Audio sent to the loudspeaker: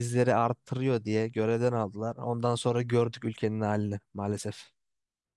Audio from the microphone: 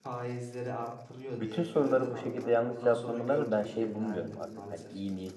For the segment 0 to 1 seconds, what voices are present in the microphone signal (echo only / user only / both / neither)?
echo only